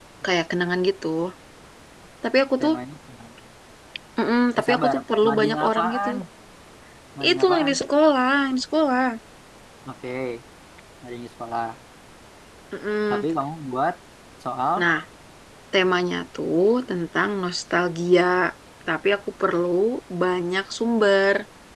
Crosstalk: present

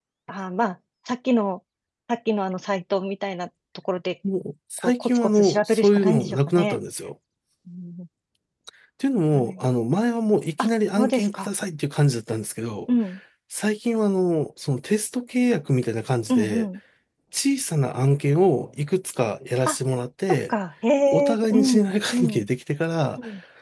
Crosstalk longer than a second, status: present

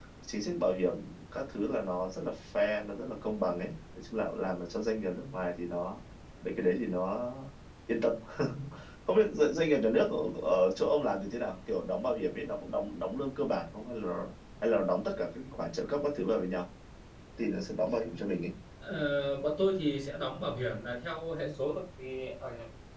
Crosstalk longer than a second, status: none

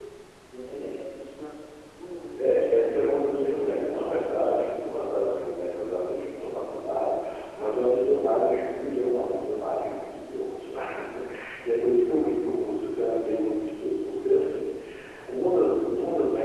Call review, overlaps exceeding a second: present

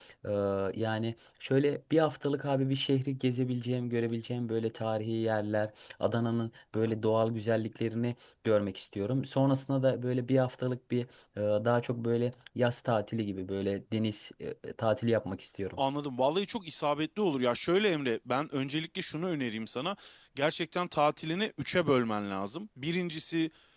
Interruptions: none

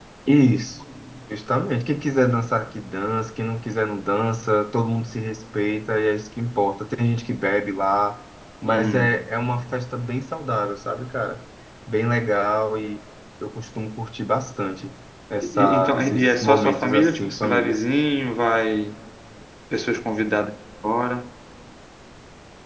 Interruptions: present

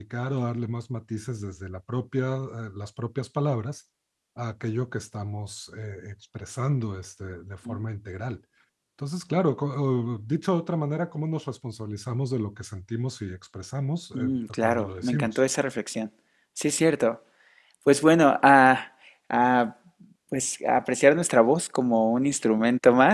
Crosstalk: present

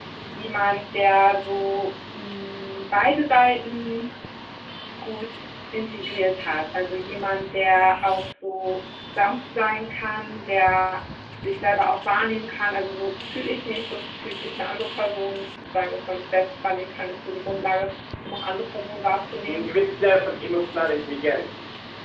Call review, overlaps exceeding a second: none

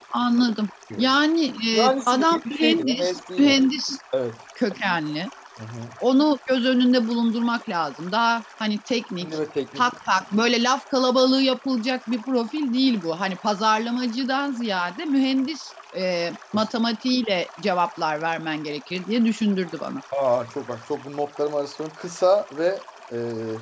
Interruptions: present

